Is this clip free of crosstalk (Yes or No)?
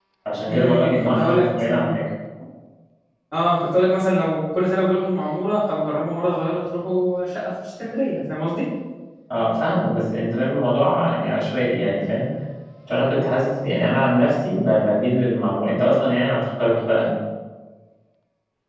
No